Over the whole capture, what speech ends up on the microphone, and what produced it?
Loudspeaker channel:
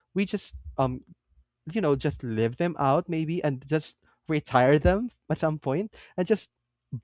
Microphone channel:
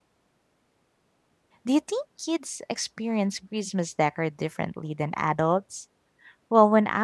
user only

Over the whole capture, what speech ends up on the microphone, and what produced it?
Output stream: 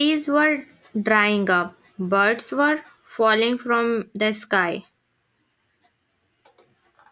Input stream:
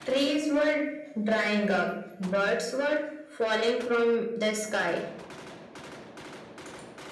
echo only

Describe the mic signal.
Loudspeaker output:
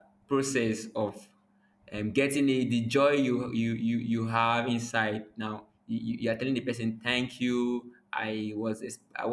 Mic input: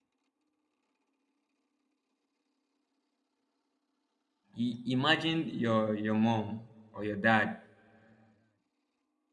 user only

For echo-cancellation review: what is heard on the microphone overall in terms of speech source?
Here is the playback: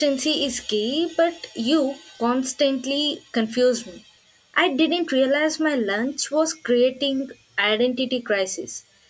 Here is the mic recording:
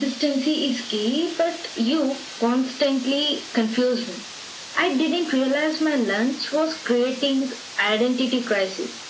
echo only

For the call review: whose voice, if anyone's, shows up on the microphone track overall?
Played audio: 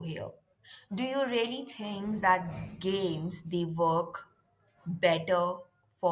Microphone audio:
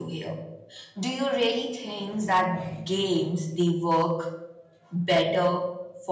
echo only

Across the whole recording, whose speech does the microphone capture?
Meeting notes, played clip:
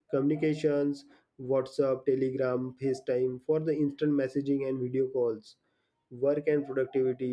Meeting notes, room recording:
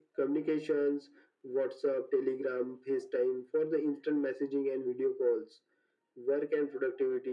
echo only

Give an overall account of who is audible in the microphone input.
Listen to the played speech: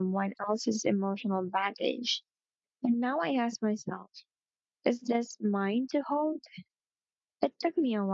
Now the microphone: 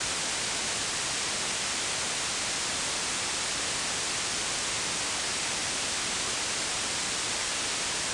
neither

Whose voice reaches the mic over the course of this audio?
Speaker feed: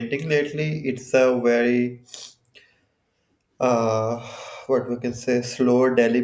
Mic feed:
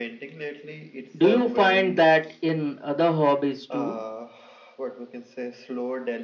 both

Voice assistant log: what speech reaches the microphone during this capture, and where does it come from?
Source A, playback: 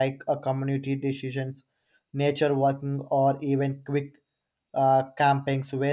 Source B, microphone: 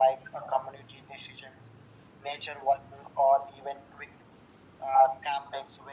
echo only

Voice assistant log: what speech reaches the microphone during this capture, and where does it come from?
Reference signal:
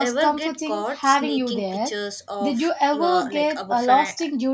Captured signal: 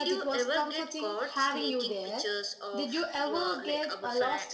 echo only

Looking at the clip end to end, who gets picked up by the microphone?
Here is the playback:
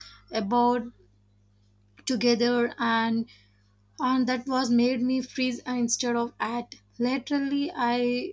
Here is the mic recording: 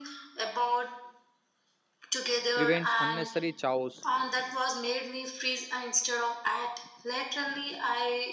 both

